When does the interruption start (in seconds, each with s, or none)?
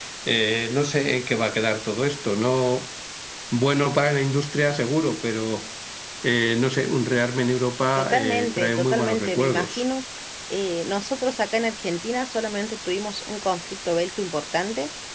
8.0 s